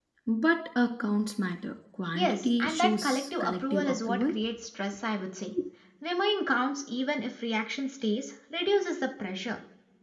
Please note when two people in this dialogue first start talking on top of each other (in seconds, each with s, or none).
2.1 s